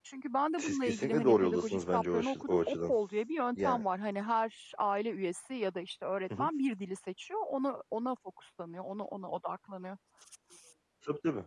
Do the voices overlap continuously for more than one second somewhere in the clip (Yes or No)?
Yes